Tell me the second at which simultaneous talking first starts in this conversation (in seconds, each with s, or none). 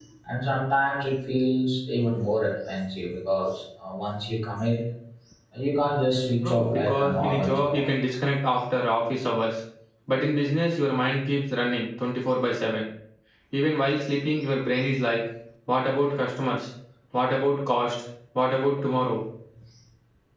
6.4 s